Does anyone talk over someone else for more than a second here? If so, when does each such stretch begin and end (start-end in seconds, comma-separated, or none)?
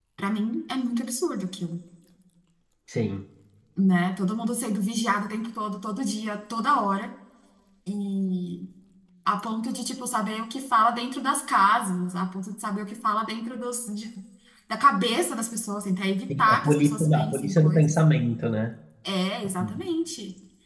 16.4-18.0